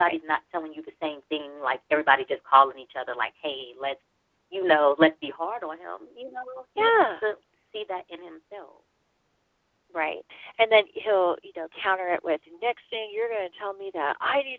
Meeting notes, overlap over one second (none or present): none